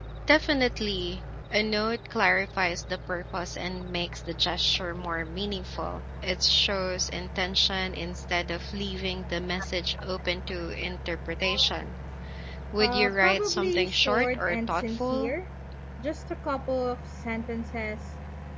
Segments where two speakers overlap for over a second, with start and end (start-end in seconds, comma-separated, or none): 12.8-15.3